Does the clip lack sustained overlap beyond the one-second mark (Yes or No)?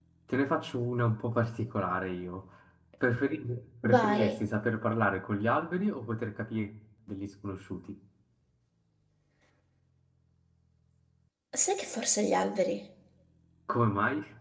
Yes